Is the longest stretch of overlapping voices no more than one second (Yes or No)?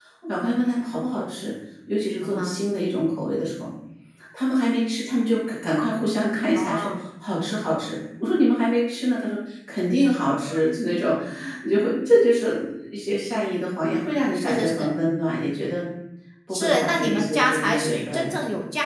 No